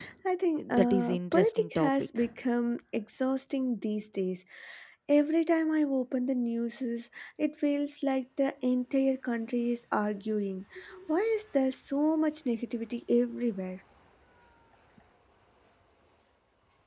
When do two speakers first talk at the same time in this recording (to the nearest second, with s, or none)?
1 s